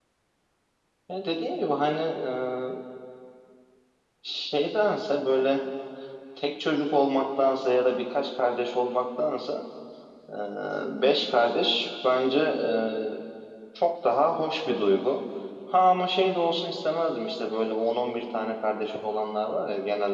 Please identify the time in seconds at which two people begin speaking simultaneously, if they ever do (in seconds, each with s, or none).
none